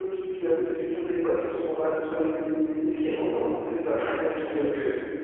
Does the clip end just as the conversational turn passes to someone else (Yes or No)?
Yes